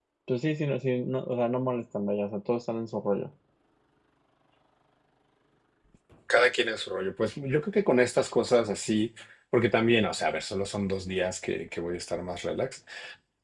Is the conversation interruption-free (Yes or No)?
Yes